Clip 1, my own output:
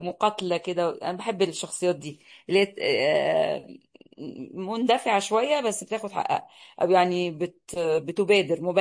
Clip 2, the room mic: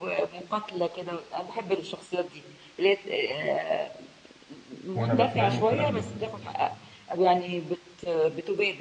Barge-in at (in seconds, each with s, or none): 5.0 s